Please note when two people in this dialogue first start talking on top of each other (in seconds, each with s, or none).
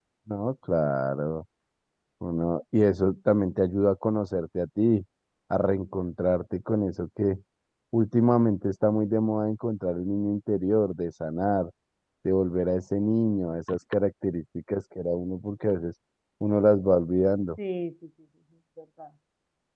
none